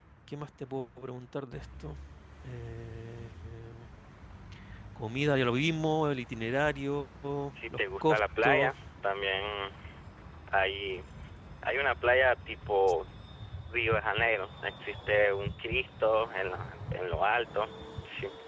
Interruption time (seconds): 7.5 s

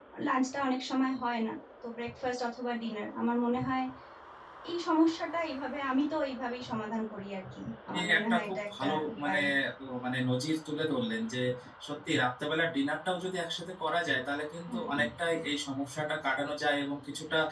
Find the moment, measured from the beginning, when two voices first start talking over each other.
7.9 s

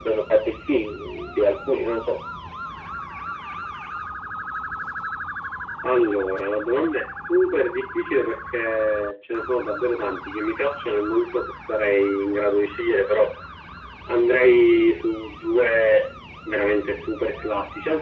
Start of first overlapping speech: none

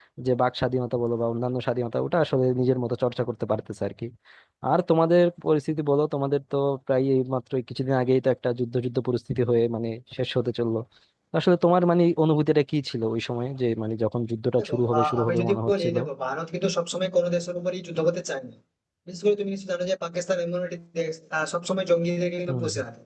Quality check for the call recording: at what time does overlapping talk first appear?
14.6 s

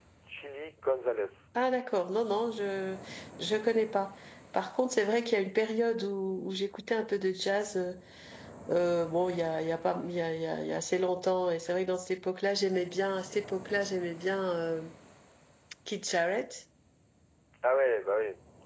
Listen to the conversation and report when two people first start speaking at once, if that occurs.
none

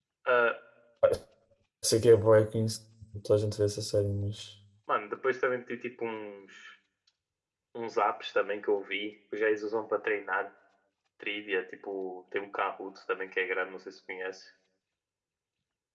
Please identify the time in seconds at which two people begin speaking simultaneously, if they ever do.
none

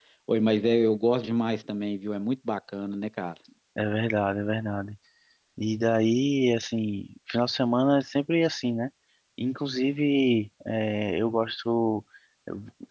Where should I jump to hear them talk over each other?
none

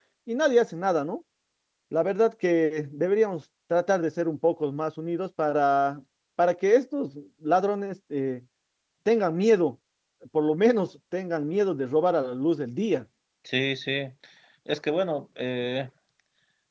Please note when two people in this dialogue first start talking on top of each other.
none

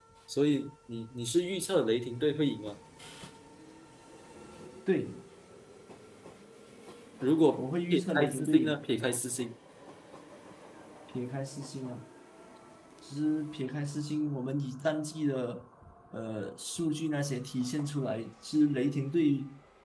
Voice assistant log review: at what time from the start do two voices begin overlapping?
7.6 s

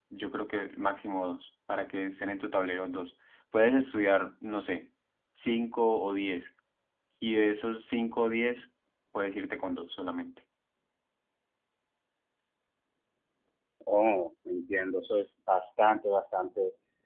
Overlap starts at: none

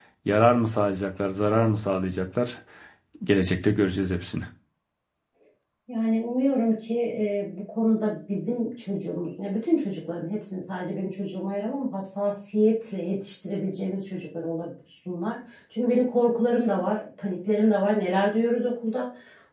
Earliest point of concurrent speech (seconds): none

